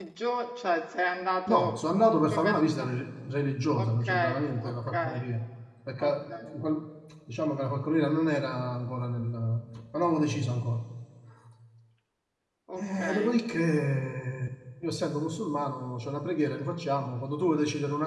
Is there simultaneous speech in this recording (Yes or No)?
Yes